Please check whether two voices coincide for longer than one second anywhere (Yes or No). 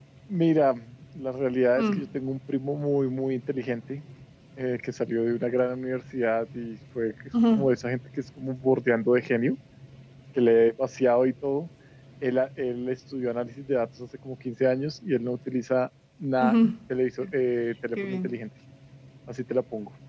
No